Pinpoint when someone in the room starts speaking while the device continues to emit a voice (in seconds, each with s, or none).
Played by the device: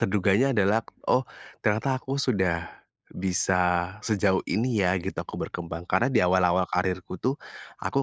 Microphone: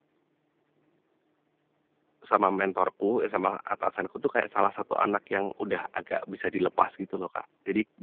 2.2 s